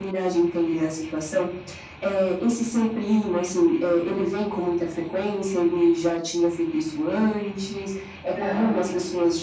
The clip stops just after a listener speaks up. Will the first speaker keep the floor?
Yes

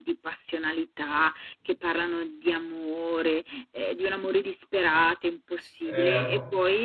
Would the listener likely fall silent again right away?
No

